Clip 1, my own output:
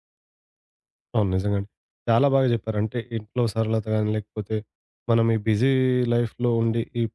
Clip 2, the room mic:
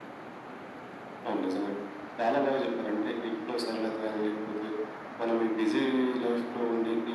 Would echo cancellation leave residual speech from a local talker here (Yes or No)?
No